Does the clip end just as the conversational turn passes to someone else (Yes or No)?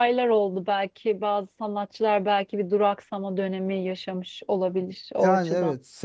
Yes